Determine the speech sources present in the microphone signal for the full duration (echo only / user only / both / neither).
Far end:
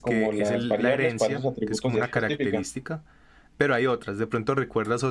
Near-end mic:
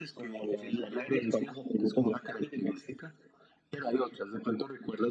echo only